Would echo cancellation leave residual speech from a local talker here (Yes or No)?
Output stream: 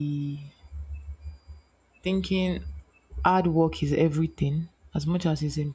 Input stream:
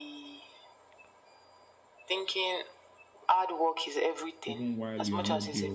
Yes